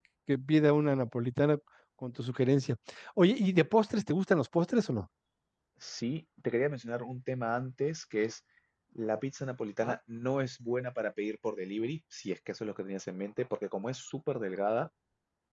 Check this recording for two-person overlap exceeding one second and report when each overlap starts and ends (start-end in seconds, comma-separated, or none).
none